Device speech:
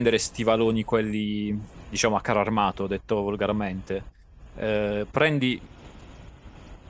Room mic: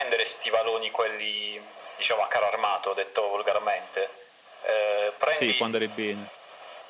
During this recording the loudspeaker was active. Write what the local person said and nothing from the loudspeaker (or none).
Sì, può andare bene.